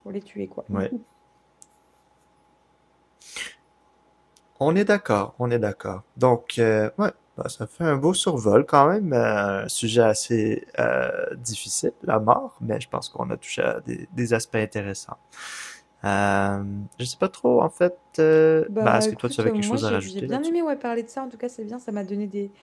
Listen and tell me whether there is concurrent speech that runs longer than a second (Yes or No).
Yes